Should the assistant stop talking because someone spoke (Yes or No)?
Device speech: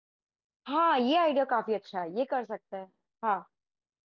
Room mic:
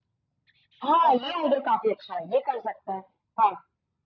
Yes